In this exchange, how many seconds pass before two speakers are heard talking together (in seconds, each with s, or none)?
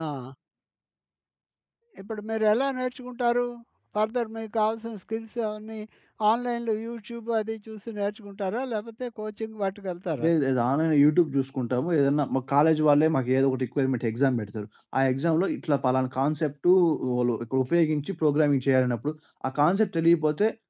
none